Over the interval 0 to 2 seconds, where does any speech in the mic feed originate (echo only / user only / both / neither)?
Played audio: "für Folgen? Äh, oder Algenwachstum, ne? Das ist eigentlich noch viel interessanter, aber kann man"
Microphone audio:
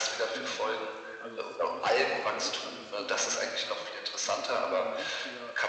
both